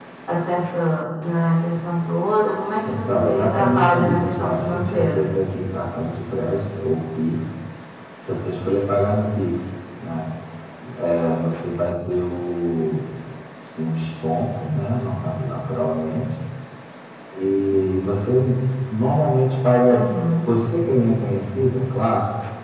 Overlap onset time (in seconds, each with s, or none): 2.8 s